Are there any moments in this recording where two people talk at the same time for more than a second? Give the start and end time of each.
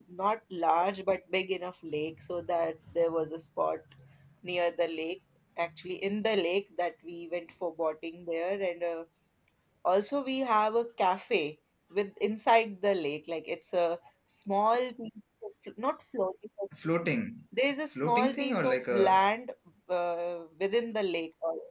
17.9-19.2

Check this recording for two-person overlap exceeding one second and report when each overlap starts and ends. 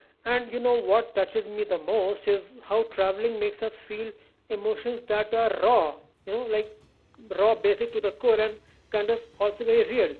none

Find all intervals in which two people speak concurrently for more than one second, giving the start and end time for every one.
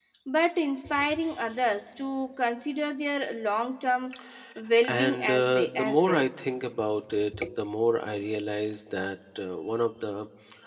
4.9-6.2

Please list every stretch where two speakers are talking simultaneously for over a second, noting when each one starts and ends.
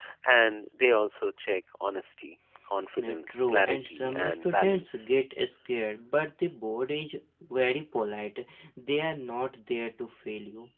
3.0-5.1

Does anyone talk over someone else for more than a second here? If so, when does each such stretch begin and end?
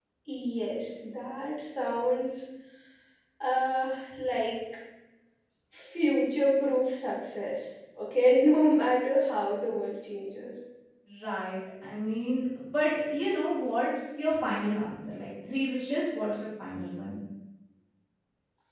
none

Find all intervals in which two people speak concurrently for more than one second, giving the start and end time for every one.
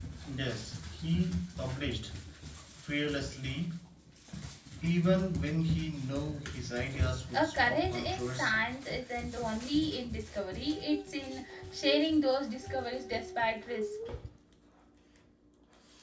7.3-8.7

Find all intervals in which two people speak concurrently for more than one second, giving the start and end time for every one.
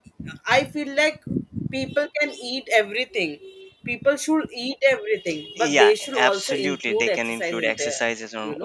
5.6-8.0

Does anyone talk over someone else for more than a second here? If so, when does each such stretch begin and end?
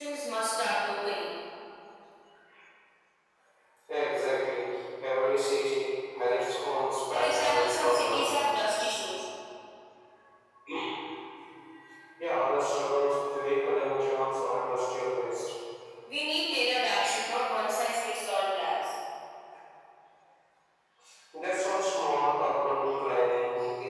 7.1-8.4

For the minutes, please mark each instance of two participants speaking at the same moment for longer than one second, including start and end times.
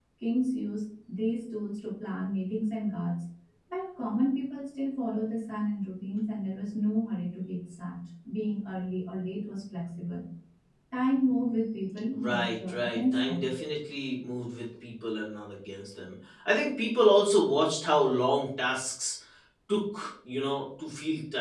12.1-13.5

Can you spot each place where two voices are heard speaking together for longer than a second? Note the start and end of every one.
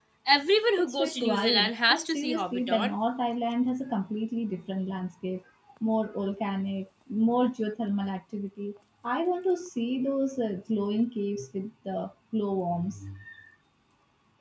0.8-3.0

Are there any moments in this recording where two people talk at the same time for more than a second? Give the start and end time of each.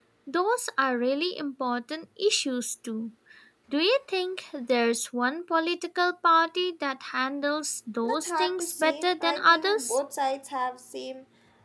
8.0-10.0

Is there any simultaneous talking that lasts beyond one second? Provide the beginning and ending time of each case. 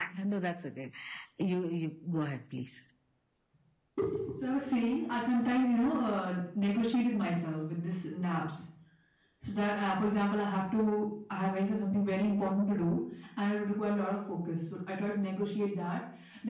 none

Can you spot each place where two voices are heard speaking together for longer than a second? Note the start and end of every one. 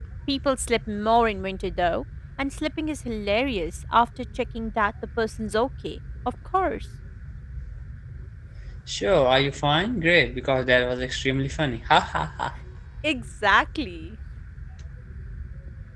none

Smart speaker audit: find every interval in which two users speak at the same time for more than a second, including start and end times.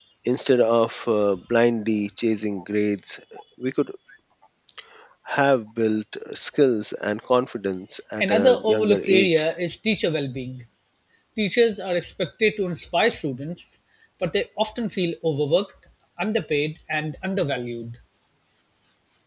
8.2-9.5

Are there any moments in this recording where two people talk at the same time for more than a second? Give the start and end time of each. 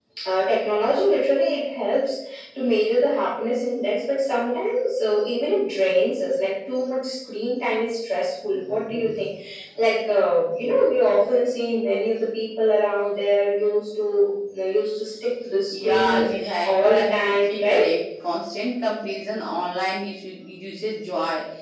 15.7-17.9

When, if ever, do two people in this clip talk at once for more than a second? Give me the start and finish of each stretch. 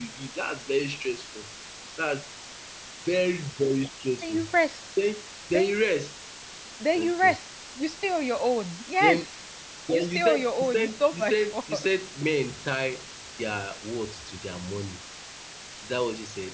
9.9-11.9

